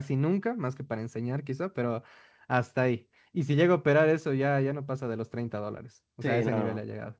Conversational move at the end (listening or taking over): taking over